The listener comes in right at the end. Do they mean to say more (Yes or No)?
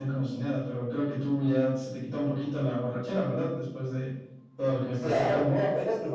Yes